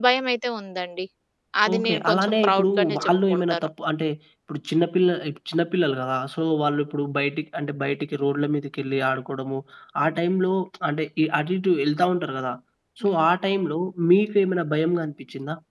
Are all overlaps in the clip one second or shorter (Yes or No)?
No